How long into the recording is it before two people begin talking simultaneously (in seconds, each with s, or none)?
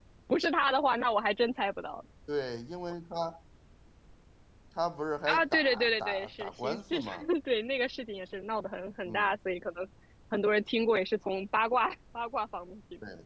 5.3 s